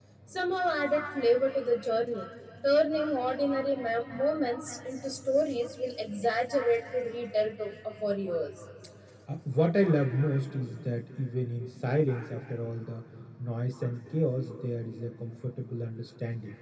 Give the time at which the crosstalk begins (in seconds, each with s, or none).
none